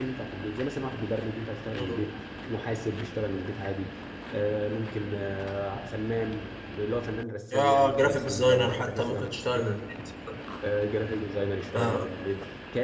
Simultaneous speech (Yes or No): Yes